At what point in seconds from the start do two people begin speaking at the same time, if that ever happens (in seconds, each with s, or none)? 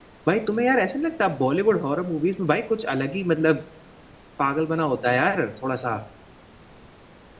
none